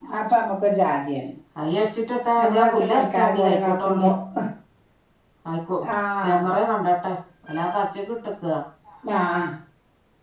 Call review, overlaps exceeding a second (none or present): present